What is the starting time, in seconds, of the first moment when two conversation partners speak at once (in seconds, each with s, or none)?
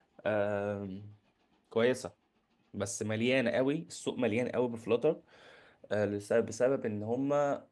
none